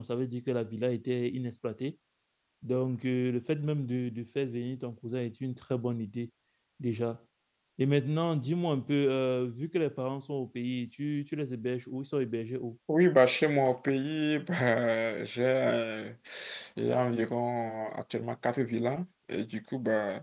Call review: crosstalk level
none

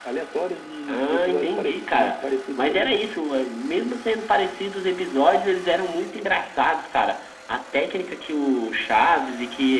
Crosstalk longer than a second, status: present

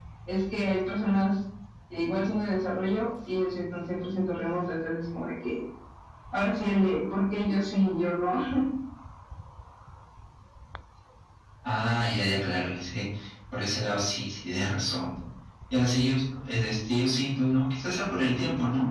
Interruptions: none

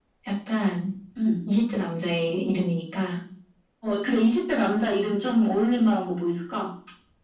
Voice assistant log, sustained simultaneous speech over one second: none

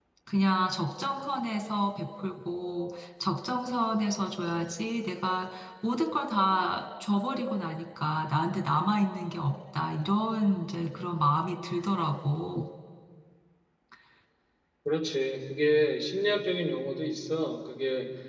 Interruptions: none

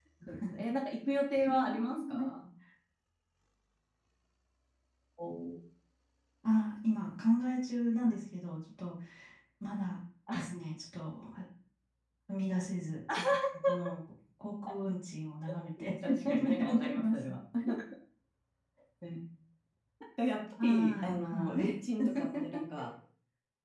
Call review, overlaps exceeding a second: present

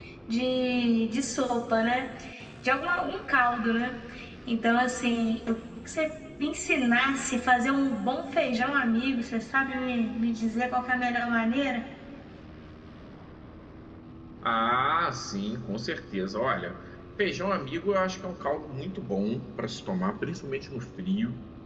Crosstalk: none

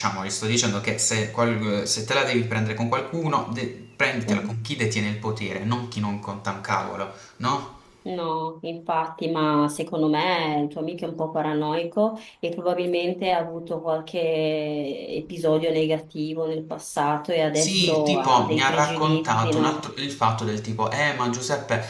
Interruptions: present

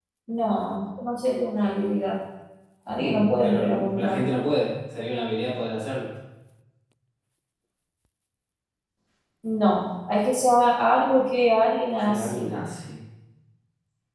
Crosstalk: present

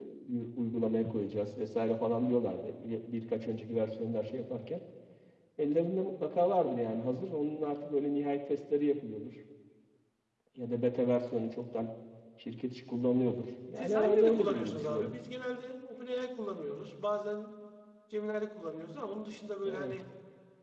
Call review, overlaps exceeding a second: present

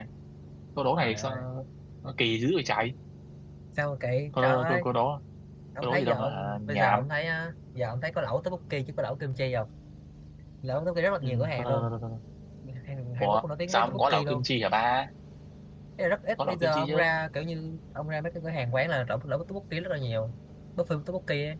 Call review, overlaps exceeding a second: present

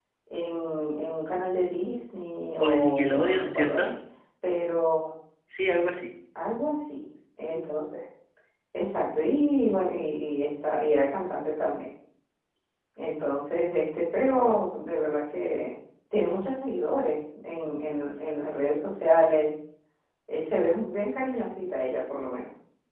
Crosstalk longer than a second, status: present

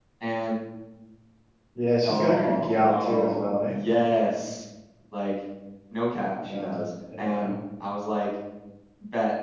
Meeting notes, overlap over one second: present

